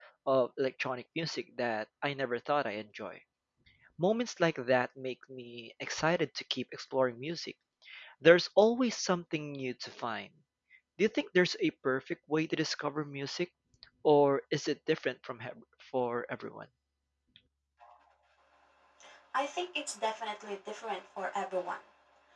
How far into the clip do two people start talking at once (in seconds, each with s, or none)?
none